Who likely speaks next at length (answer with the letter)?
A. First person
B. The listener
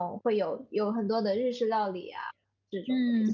B